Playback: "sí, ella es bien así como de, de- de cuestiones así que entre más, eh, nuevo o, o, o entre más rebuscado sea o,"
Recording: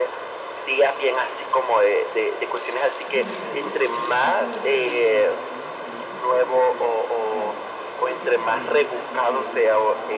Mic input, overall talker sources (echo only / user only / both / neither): both